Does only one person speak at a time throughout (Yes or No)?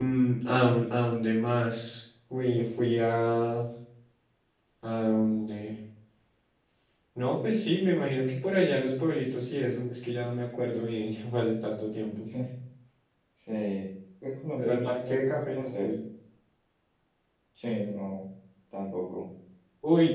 No